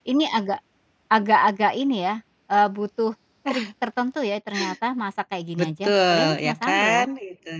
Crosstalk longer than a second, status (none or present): present